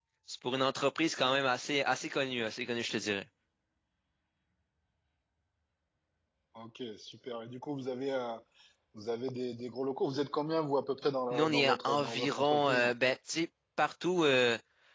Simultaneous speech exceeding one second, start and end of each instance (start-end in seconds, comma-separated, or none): 11.3-12.8